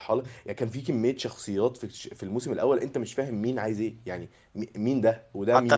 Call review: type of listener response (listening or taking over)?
taking over